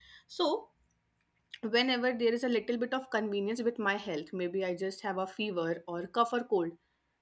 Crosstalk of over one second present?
No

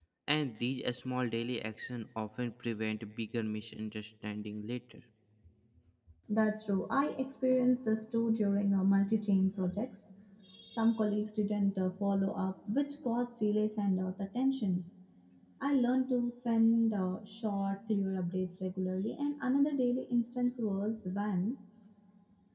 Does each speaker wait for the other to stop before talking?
Yes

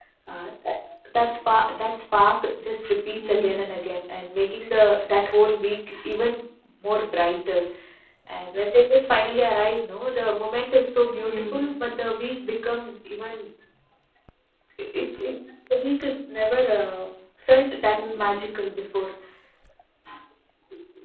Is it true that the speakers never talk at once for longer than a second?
Yes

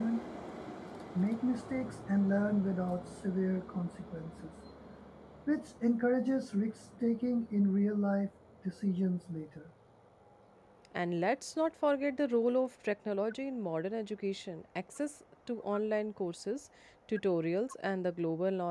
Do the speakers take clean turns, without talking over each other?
Yes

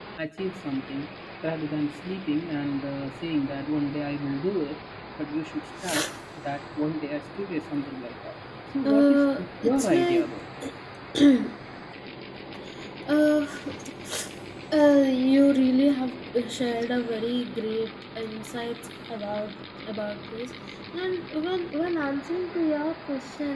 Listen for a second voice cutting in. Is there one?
Yes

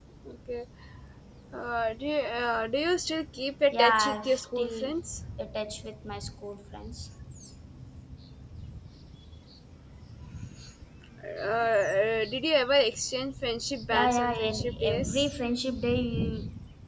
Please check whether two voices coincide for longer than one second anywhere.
Yes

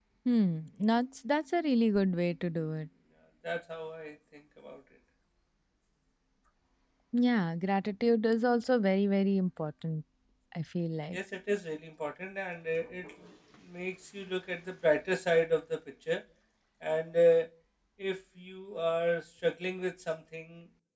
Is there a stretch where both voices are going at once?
No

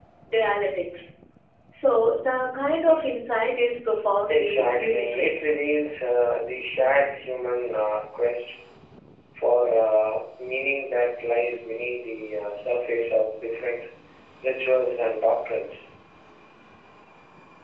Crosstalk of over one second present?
Yes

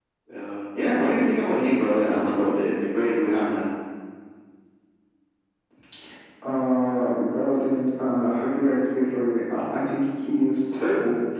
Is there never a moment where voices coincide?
Yes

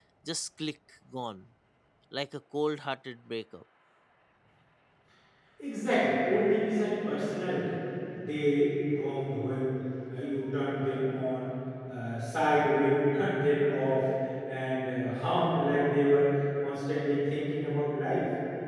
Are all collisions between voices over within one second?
Yes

